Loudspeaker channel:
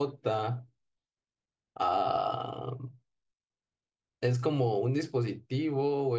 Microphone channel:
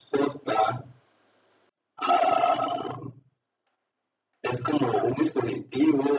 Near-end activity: none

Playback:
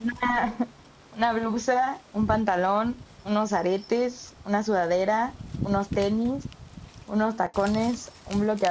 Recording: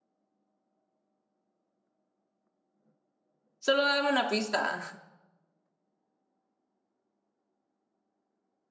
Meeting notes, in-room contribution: present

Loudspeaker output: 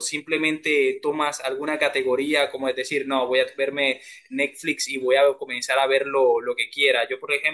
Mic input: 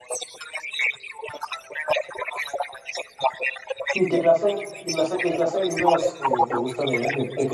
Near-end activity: present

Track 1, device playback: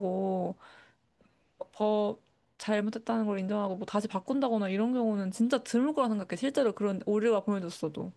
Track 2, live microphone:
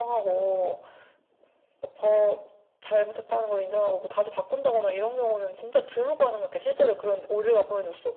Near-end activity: none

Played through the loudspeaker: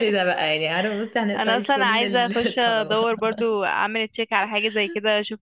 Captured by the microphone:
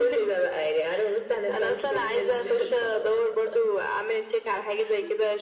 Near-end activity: none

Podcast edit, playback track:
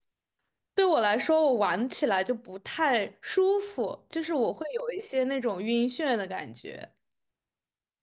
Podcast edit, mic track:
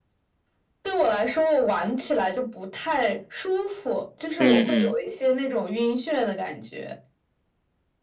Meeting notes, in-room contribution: present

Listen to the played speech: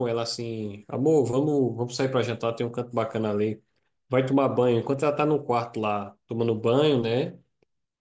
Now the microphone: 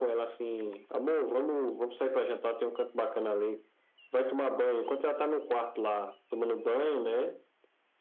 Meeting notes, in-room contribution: none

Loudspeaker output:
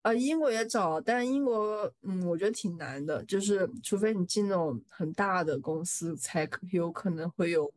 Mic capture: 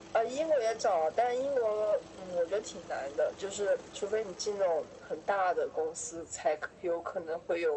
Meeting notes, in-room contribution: none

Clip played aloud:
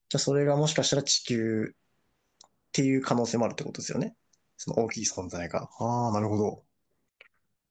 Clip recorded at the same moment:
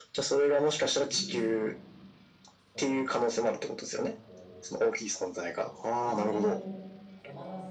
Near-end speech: present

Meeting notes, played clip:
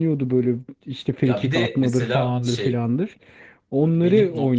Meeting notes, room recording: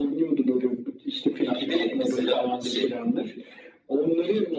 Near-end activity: none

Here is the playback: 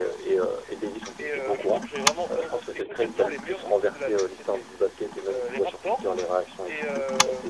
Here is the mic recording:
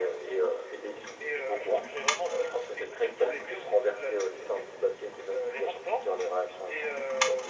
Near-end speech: none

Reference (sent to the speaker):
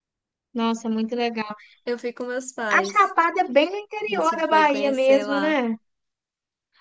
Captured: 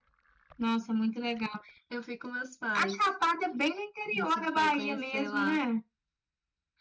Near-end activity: none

